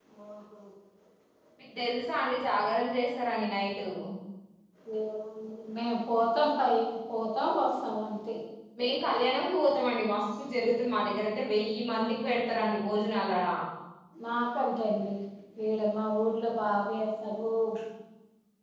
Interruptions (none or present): none